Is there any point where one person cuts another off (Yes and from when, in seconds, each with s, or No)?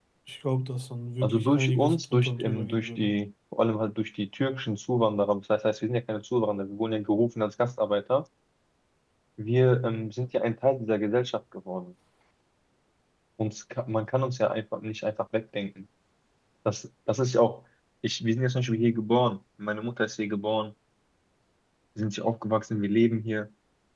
Yes, from 1.2 s